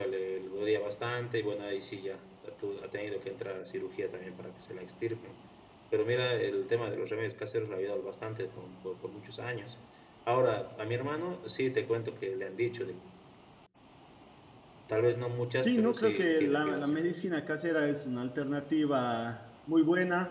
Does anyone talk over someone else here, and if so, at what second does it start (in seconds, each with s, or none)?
15.6 s